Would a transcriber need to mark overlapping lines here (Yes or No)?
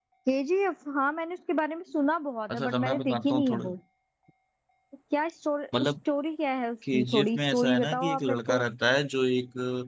Yes